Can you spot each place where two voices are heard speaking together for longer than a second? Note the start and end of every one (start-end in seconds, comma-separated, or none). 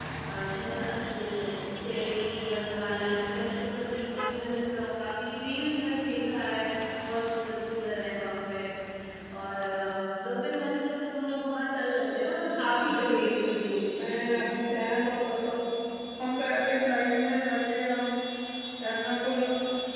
12.9-14.3